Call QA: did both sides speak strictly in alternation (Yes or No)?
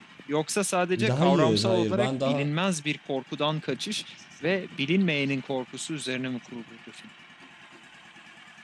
No